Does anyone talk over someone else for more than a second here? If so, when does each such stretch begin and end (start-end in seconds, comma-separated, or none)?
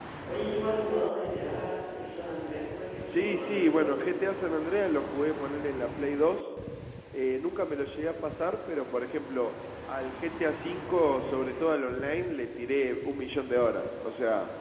3.0-4.4